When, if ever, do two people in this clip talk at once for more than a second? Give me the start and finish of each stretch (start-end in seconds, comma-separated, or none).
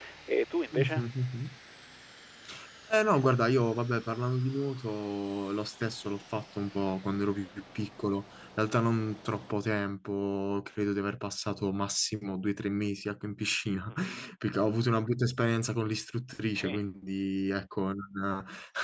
none